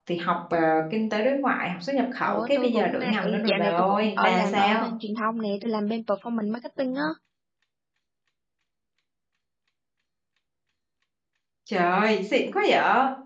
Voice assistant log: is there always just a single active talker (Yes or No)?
No